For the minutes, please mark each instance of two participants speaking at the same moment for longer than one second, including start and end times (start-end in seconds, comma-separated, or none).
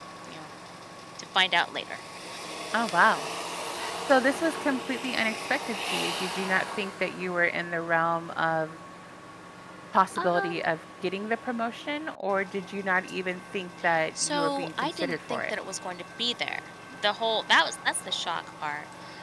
14.2-15.6